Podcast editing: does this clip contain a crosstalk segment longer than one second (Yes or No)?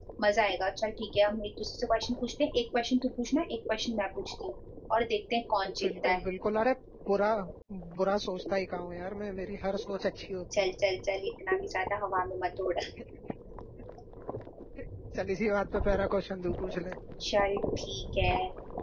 No